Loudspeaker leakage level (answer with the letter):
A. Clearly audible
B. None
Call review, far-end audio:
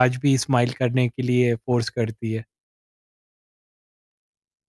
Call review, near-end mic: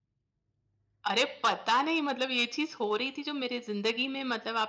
B